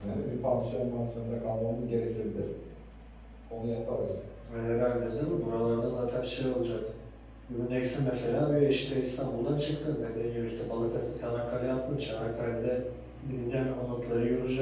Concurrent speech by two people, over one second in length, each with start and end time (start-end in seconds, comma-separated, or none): none